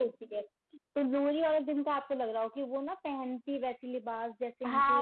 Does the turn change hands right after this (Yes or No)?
Yes